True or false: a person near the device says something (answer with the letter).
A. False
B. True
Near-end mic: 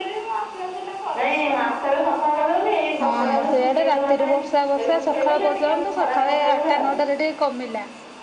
B